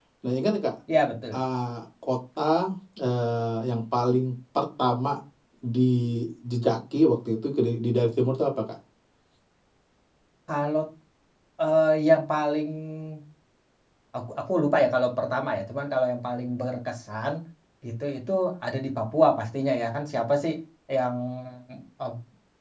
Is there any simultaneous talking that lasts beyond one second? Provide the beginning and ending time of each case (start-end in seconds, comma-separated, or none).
none